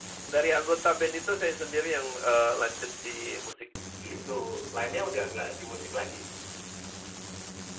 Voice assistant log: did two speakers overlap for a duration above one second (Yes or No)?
No